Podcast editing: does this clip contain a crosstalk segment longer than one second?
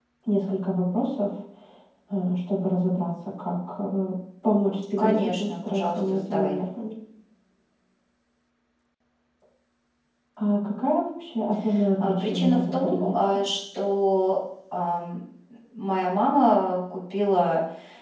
Yes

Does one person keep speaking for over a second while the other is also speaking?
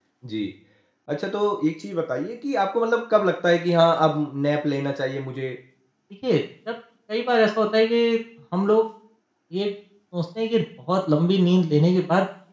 No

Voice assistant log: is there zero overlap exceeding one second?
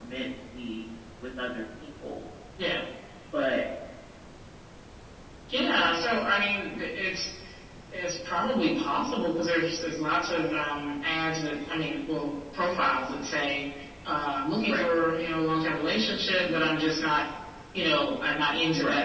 Yes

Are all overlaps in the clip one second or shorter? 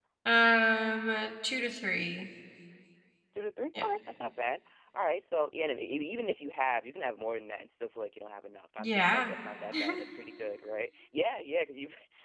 Yes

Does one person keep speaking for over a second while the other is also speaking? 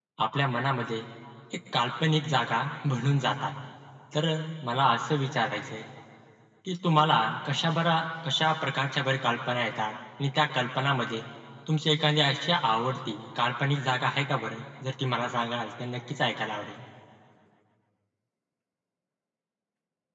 No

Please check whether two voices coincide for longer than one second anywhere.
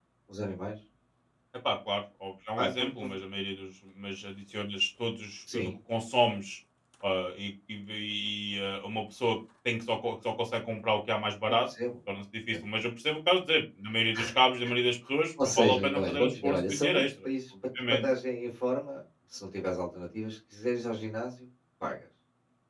Yes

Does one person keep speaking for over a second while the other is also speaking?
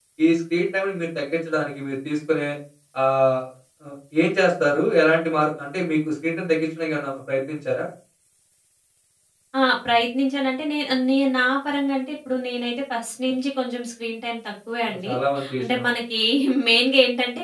No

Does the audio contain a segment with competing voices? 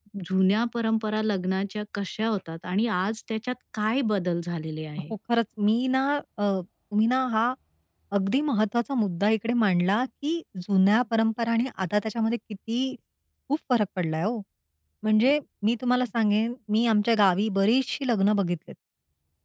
No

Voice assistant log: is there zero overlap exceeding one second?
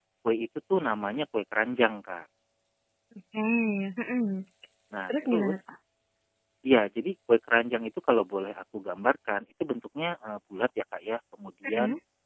Yes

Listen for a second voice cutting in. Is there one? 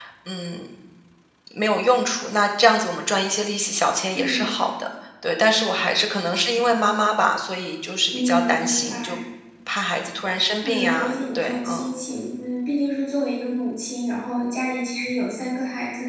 Yes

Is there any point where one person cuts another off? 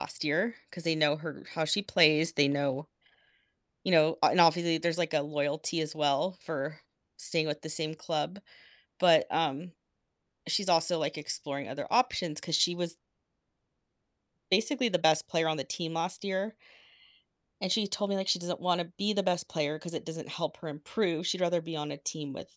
No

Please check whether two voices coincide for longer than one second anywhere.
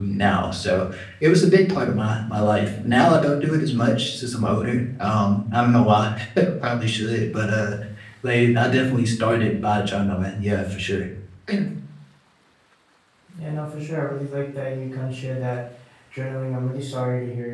No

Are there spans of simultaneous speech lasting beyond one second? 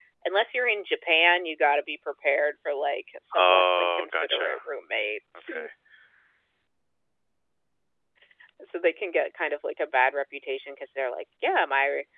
Yes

